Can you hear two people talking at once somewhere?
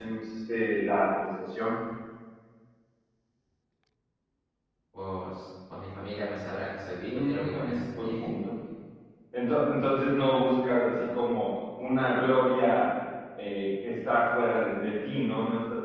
Yes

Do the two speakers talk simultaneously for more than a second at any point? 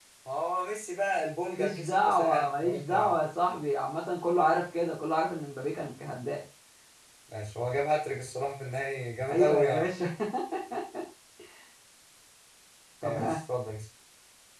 Yes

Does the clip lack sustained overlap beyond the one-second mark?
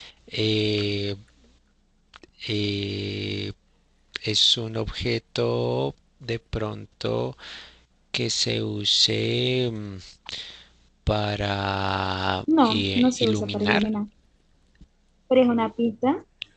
No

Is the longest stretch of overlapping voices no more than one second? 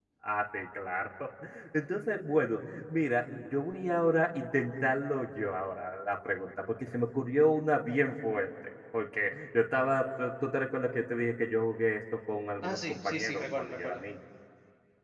No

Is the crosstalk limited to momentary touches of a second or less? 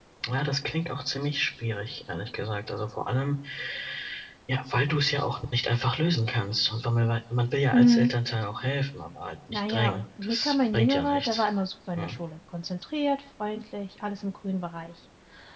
No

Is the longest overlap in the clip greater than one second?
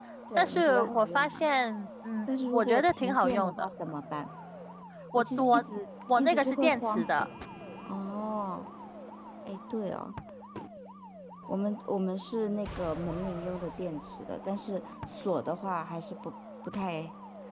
Yes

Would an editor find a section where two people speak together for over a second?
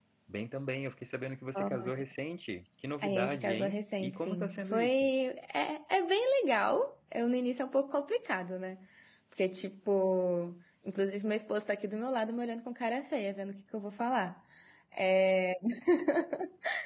Yes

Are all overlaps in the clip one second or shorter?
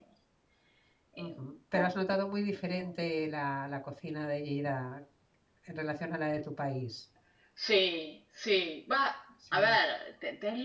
Yes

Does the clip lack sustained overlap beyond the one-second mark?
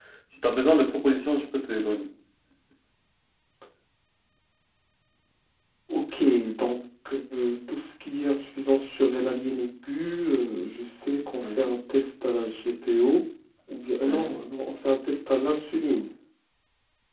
Yes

